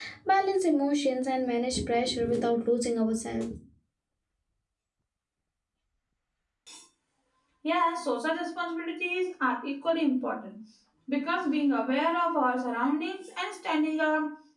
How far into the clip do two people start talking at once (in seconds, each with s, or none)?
none